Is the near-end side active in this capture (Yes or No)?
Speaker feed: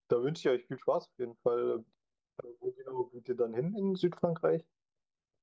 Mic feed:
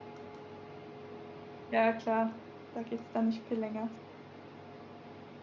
Yes